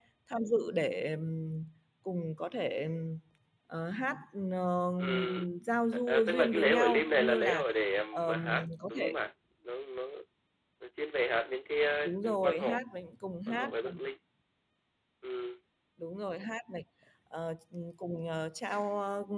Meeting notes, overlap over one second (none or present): present